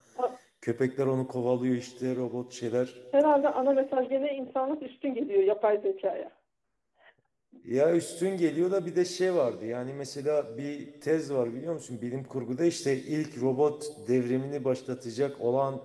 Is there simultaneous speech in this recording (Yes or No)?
No